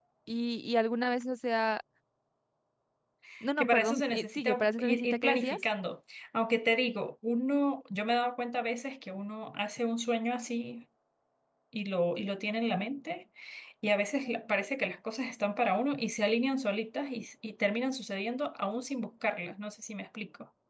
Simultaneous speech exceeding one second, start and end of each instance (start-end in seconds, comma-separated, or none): 3.6-5.6